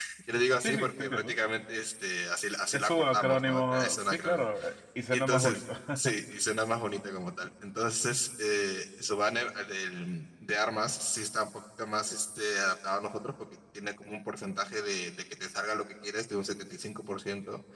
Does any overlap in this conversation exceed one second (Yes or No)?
Yes